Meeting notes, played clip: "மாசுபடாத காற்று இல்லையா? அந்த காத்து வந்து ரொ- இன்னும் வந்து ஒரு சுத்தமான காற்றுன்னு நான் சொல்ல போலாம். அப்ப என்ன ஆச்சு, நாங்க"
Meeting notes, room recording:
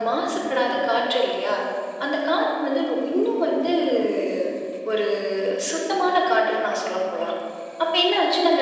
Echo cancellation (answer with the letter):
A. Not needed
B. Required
B